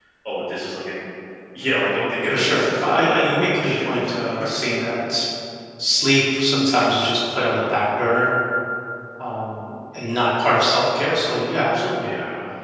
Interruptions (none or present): present